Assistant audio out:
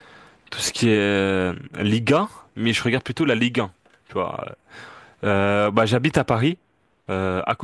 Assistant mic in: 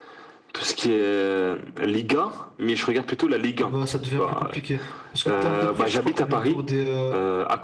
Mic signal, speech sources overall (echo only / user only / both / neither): both